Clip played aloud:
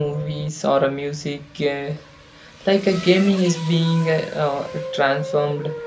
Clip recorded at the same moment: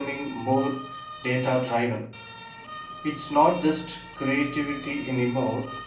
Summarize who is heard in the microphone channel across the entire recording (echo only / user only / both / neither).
user only